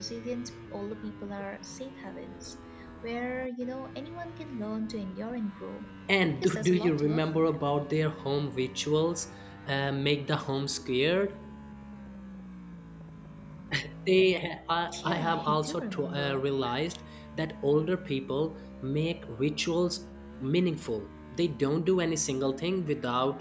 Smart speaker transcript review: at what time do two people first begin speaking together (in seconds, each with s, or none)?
6.4 s